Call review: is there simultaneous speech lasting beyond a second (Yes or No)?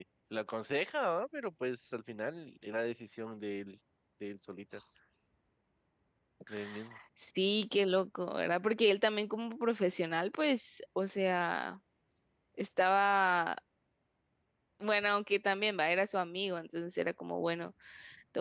No